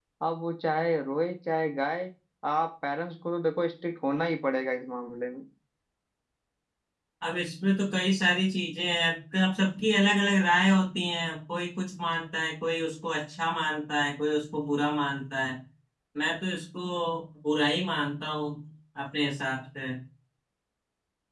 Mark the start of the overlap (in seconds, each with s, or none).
none